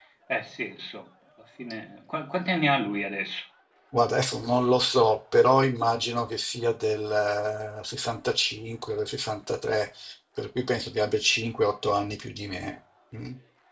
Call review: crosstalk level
none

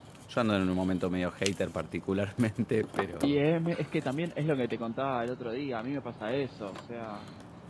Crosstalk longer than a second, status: none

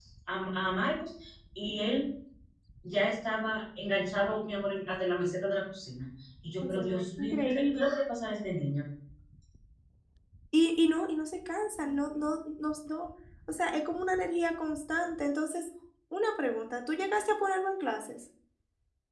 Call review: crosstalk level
present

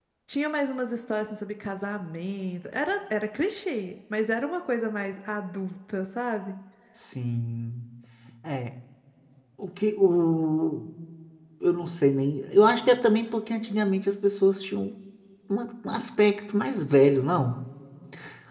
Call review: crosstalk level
none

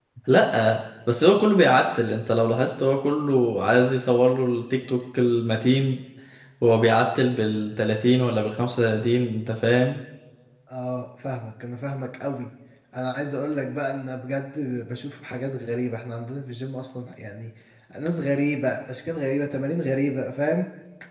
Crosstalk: none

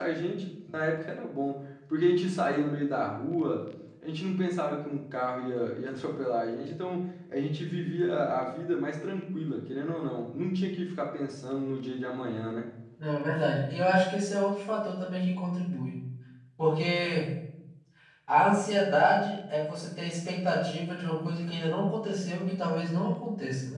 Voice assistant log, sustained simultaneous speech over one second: none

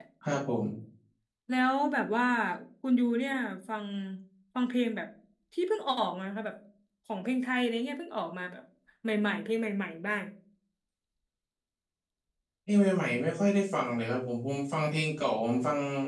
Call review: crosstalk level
none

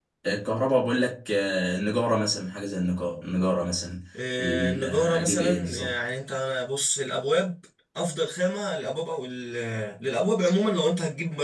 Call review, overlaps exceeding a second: present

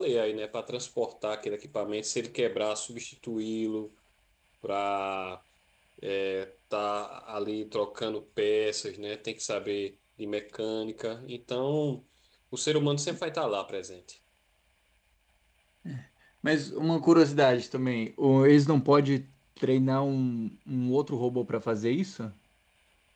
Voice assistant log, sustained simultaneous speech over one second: none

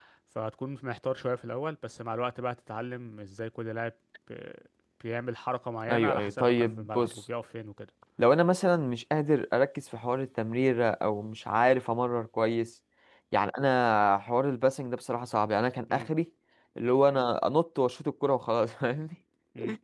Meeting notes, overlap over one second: present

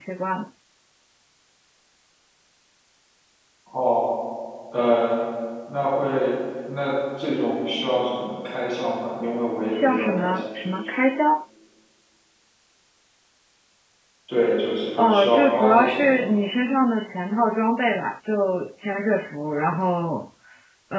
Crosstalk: present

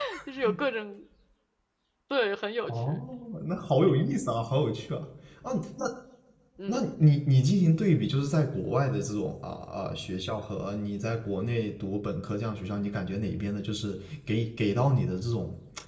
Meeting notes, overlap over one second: none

